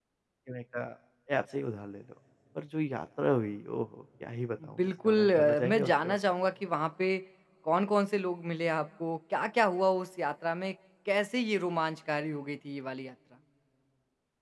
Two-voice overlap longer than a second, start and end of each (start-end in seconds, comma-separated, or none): 4.8-6.2